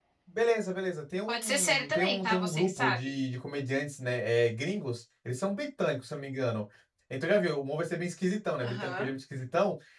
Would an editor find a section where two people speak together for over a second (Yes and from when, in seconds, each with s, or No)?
Yes, from 1.3 s